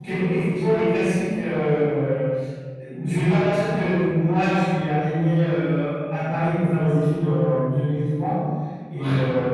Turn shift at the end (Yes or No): No